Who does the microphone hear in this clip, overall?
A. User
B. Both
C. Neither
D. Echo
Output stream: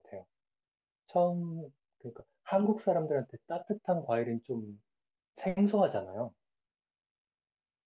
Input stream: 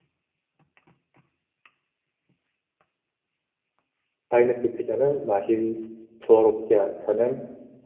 A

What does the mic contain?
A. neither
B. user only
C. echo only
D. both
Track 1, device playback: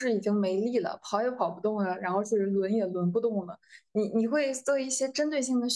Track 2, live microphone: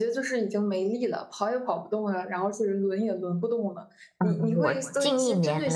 D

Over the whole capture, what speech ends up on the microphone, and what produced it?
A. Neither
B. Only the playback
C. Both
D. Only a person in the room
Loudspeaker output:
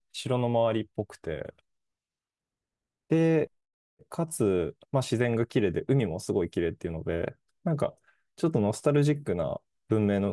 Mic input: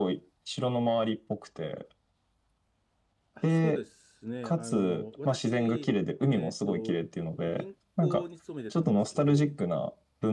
C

